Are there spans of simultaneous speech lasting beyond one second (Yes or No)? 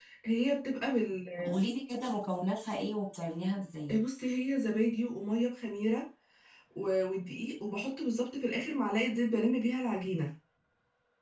No